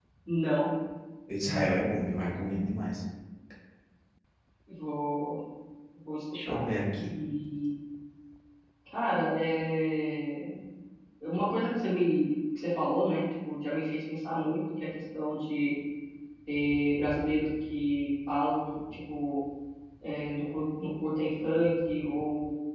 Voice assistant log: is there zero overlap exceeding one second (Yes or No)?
Yes